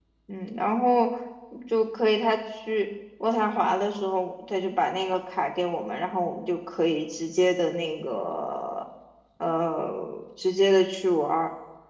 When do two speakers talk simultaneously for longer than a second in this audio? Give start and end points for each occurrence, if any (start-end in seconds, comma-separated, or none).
none